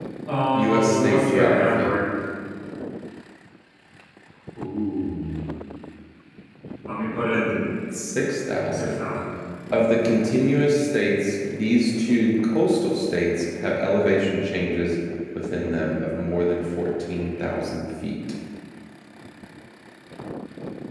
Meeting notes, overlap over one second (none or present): present